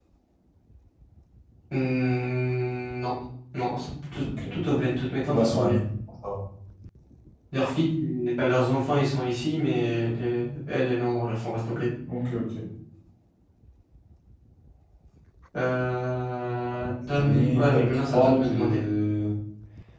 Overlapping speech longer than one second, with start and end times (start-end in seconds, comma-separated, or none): 16.7-18.8